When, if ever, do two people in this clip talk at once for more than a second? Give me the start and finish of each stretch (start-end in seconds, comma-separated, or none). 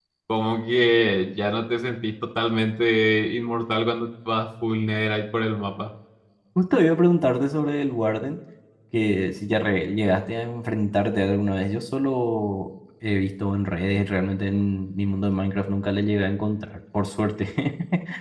none